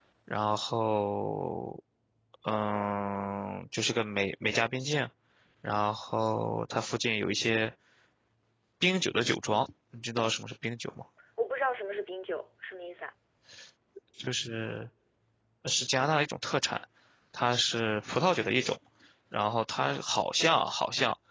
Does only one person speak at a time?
Yes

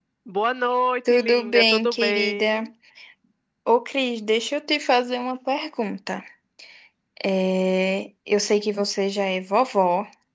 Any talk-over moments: Yes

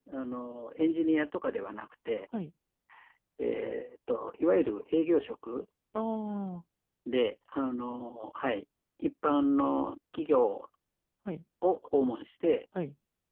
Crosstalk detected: No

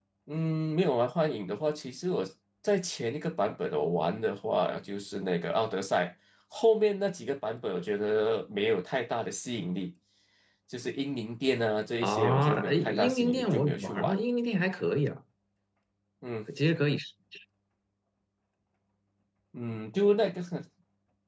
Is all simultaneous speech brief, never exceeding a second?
No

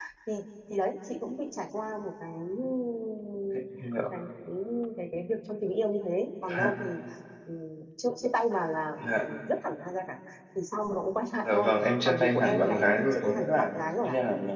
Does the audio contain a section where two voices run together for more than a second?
Yes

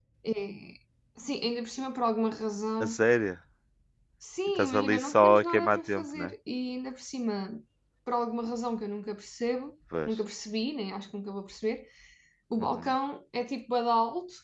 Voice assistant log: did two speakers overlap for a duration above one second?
Yes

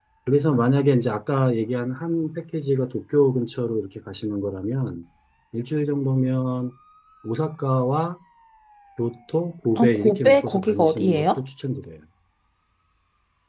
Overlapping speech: Yes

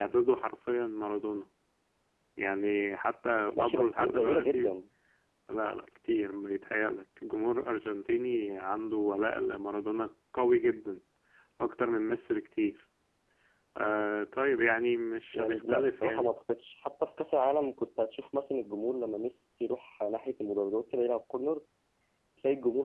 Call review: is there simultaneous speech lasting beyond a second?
Yes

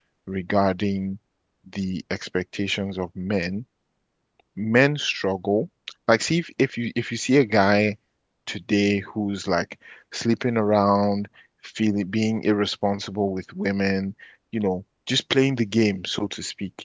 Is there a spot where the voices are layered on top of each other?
No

